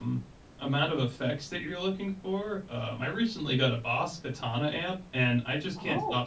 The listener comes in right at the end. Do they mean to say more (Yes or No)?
No